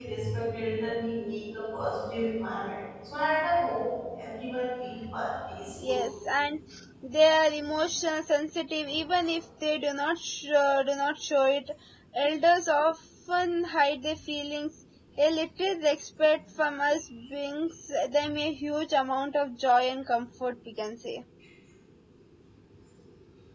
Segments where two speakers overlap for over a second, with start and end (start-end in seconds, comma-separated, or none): none